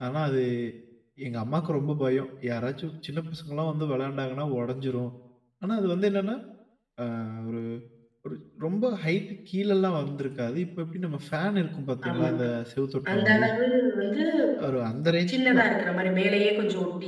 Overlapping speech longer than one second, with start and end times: none

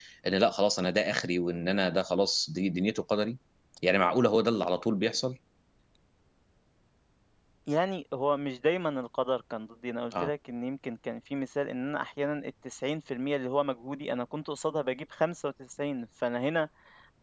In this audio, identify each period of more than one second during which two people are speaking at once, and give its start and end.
none

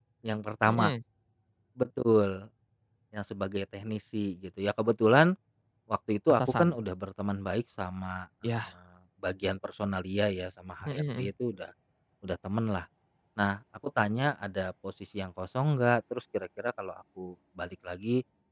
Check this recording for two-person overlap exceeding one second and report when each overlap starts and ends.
none

